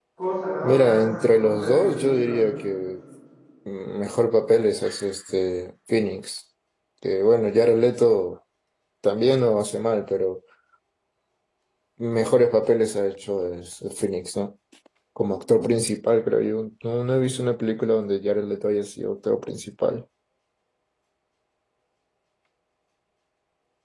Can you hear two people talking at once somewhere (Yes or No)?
Yes